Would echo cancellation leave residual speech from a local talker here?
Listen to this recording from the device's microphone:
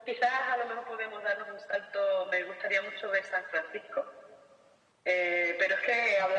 No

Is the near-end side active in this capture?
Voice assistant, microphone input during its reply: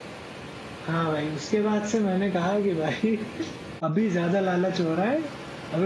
Yes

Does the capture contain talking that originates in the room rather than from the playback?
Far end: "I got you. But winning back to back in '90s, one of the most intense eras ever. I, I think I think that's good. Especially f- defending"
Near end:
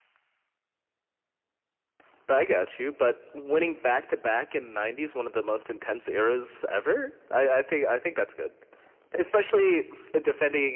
No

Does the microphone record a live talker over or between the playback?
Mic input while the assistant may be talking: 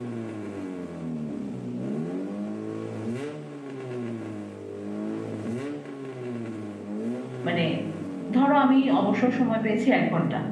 Yes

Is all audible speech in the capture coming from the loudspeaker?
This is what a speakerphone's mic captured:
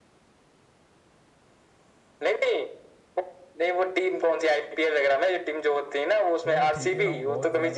No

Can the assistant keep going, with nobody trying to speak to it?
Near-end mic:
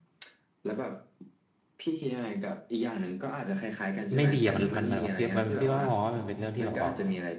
No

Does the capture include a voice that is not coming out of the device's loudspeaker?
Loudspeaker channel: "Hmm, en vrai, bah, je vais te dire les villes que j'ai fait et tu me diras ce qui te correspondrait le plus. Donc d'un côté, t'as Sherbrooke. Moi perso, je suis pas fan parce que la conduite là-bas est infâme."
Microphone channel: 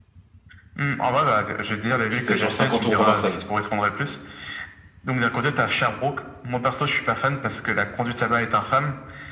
Yes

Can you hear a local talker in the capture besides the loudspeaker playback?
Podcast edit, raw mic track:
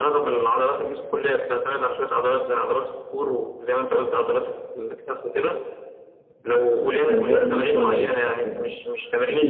Yes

